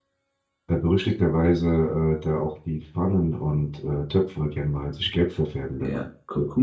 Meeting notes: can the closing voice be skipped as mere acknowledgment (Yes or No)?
No